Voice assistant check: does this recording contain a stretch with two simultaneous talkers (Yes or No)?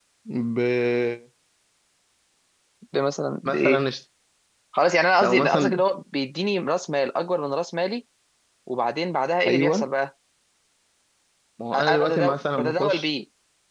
Yes